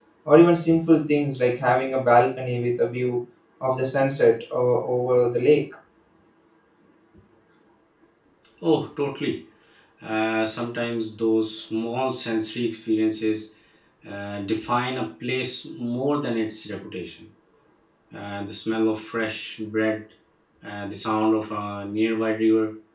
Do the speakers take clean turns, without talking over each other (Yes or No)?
Yes